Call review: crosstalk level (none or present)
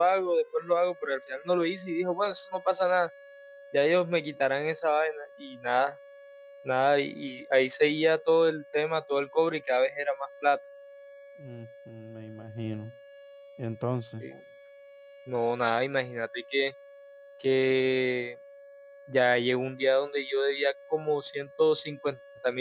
none